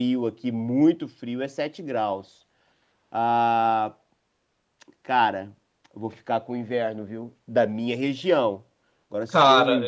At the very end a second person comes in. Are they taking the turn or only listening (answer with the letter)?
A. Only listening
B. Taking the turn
A